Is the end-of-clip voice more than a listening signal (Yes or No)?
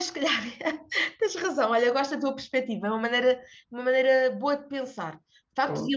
No